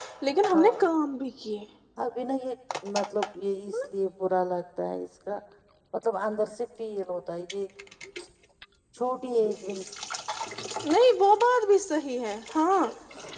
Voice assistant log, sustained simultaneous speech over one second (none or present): none